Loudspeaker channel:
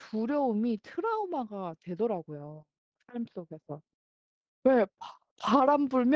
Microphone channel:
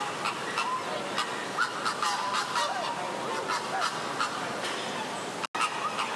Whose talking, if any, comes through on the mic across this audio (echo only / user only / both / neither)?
neither